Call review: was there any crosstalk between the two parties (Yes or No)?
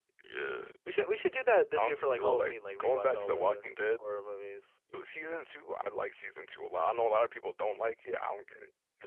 Yes